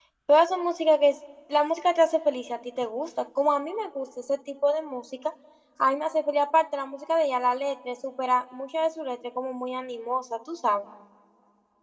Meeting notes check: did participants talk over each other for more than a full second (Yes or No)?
No